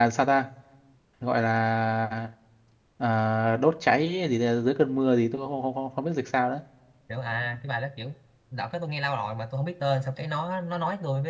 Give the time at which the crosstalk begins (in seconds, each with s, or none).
none